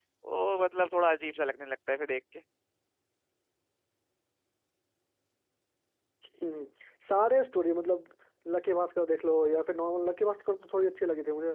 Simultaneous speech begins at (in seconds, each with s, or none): none